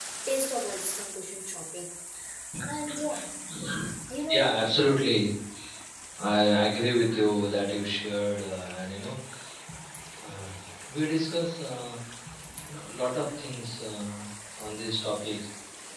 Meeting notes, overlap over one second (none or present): none